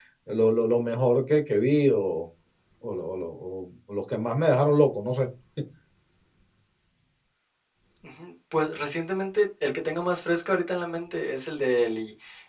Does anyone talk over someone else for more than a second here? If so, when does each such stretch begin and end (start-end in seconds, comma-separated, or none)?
none